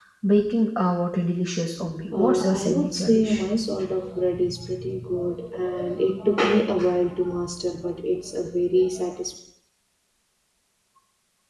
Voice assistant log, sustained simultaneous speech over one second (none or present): present